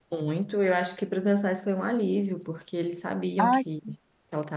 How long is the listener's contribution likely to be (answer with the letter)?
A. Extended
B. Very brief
B